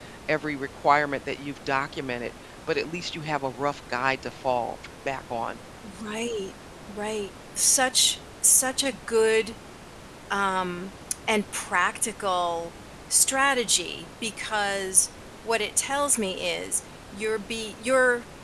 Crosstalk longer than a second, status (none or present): none